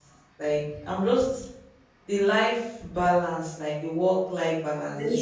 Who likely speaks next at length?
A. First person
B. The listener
B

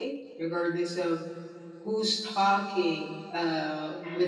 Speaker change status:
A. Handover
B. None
B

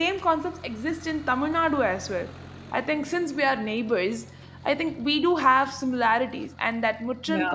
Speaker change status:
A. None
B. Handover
A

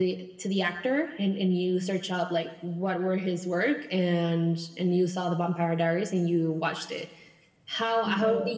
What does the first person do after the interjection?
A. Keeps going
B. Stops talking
A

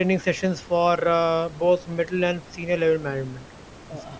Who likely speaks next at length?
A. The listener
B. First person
A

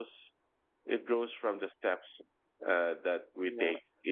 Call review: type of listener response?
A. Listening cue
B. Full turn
A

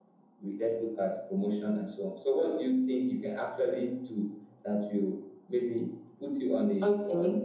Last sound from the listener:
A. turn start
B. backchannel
A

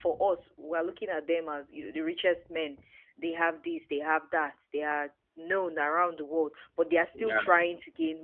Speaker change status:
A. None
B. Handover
A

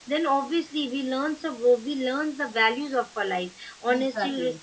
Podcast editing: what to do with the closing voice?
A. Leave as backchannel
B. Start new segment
A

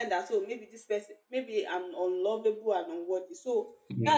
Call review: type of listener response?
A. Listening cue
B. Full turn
A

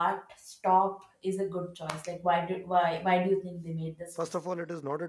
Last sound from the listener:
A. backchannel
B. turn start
B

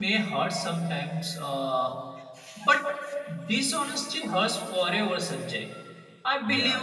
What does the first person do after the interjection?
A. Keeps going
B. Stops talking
A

